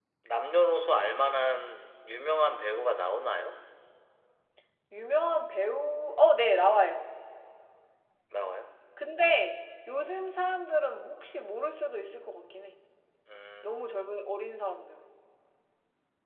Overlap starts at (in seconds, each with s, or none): none